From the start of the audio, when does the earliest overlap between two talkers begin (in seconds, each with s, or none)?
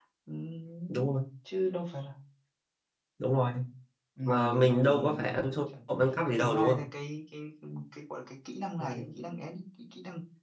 4.2 s